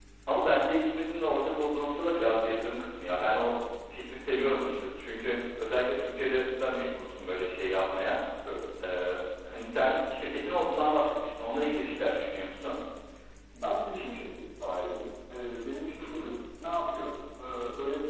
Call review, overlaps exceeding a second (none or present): none